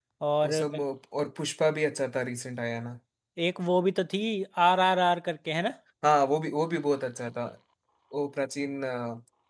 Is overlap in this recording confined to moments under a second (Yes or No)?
Yes